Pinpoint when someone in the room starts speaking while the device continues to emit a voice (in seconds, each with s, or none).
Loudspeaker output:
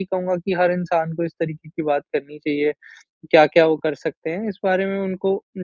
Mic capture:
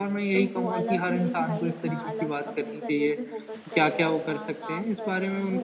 0.3 s